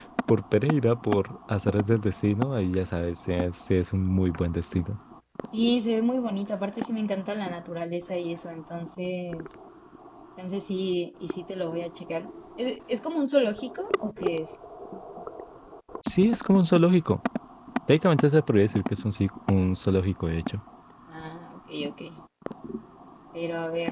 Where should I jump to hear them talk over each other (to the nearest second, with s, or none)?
none